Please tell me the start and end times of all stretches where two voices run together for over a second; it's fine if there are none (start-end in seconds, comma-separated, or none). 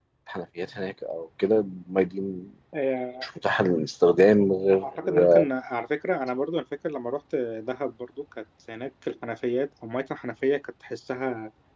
none